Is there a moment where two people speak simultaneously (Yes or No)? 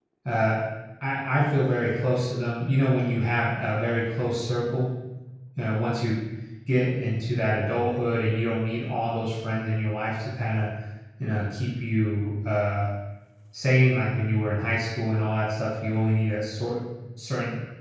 No